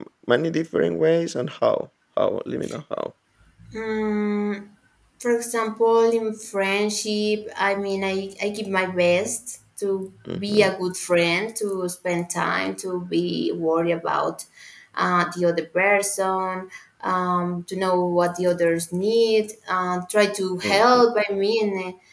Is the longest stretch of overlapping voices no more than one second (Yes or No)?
Yes